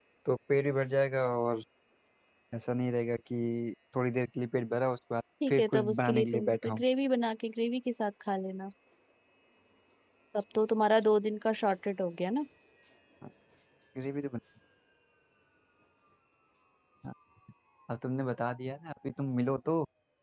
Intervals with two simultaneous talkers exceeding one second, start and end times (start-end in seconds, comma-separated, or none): 5.5-6.8